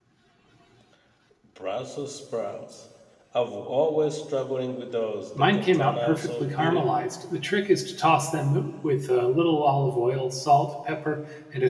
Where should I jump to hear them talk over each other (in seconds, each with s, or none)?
5.4 s